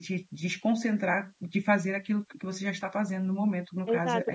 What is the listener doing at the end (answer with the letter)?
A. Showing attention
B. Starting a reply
B